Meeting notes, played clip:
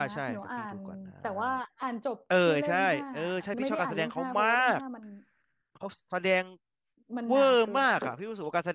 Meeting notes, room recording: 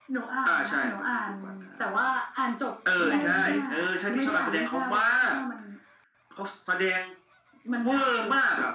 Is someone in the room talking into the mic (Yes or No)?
Yes